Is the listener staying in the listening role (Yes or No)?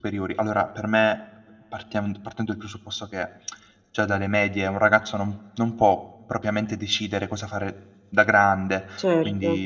Yes